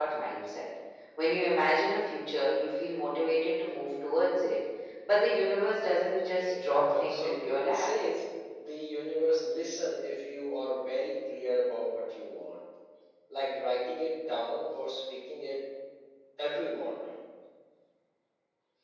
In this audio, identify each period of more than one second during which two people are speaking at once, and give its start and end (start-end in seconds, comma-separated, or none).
6.2-7.9